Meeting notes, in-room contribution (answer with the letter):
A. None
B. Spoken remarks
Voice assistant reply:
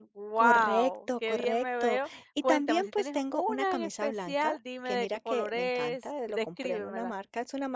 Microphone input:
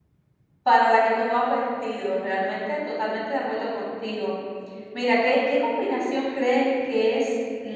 B